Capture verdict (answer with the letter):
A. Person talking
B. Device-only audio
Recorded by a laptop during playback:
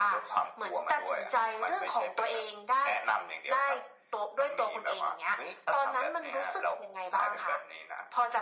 B